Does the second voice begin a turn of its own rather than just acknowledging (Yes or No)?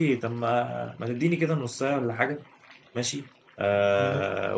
No